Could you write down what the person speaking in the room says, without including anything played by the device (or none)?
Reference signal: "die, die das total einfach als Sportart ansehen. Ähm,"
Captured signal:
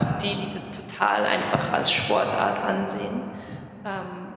none